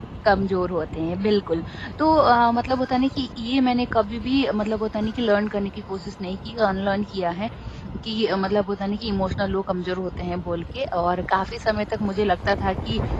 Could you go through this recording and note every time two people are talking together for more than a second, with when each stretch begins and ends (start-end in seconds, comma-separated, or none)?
none